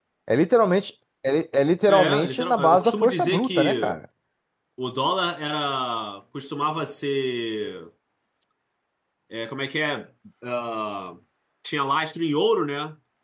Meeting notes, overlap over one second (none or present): present